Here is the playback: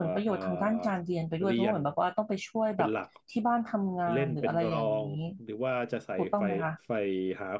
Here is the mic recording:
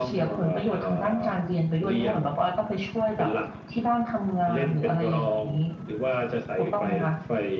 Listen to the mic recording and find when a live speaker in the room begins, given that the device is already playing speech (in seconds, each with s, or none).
none